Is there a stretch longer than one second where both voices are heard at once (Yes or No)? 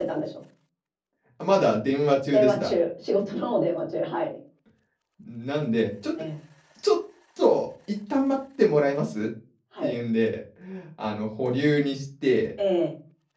No